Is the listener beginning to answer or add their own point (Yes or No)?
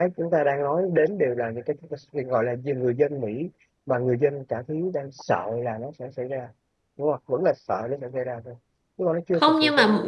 Yes